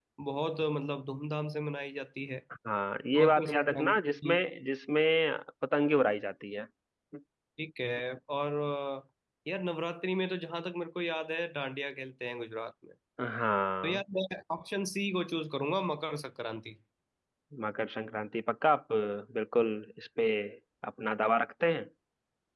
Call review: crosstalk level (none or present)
present